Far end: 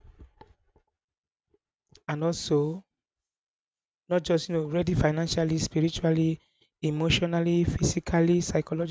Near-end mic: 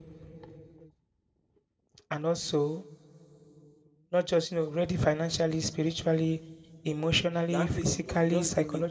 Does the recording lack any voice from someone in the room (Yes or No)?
No